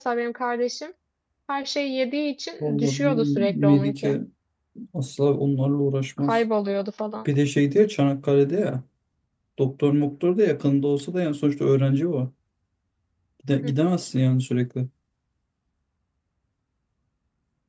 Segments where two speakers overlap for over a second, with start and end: 2.6-4.2

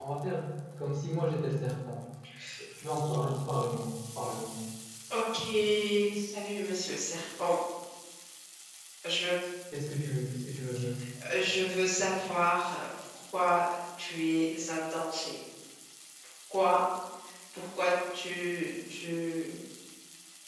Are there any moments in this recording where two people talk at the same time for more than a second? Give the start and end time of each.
none

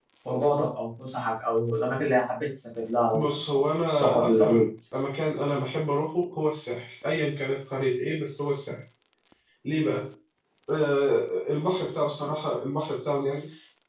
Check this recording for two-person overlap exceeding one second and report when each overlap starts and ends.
3.1-4.7

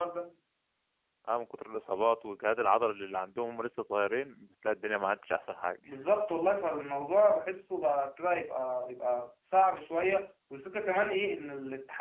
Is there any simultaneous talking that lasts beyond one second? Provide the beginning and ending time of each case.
none

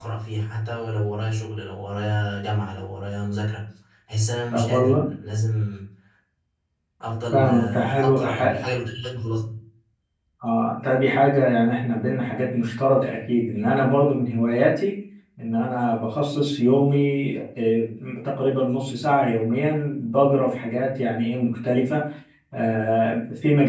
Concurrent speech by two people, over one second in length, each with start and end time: 7.3-8.6

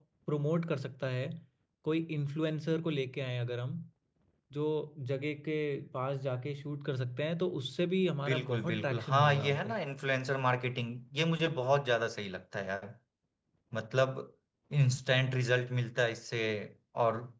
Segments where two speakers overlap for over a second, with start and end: 8.3-9.8

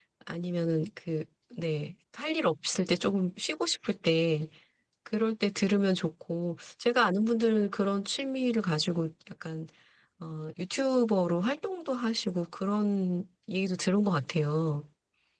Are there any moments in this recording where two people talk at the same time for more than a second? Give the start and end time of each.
none

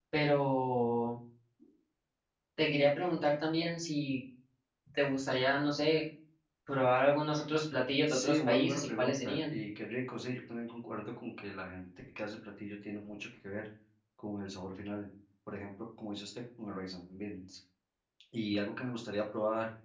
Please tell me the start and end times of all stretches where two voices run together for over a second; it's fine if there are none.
8.1-9.6

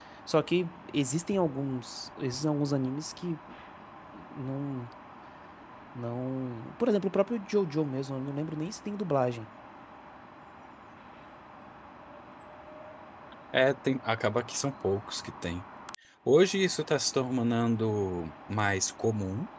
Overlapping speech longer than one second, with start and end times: none

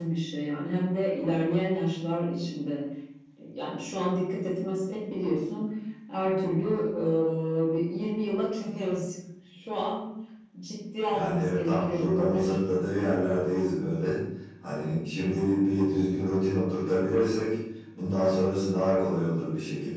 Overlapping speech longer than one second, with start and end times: 11.1-12.5

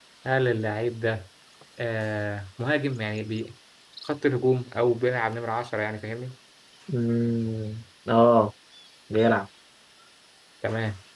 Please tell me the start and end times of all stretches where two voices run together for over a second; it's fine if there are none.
none

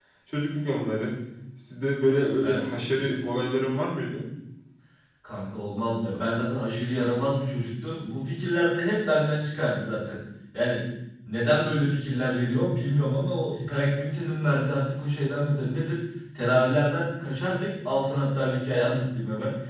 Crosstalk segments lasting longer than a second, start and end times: none

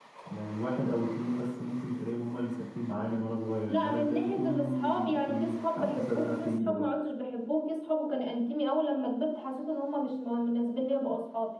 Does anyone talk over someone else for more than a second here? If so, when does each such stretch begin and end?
3.7-6.9

